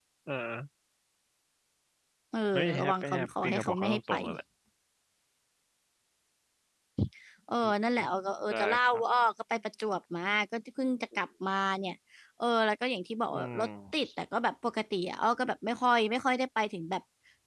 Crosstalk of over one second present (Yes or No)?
Yes